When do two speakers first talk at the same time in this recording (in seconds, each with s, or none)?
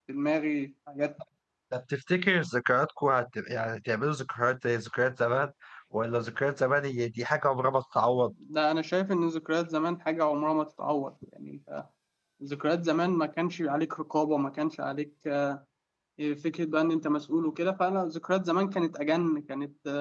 none